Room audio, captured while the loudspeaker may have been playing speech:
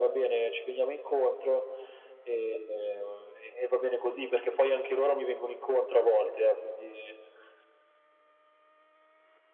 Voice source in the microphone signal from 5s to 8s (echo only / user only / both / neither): echo only